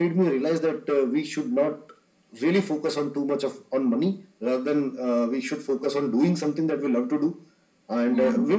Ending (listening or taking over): listening